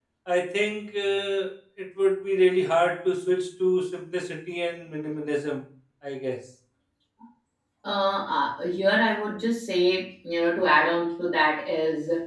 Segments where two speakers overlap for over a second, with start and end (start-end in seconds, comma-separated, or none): none